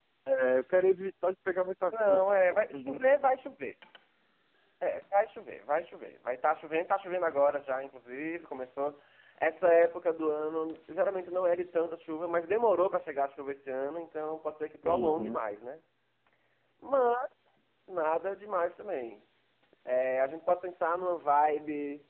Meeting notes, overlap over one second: none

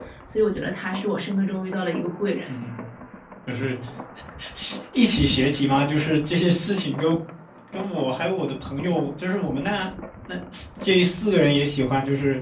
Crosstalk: none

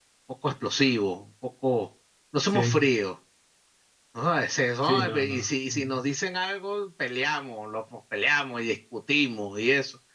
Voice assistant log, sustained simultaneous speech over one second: present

